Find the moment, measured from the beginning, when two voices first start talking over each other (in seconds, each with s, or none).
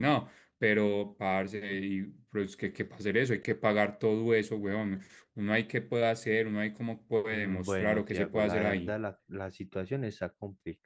7.3 s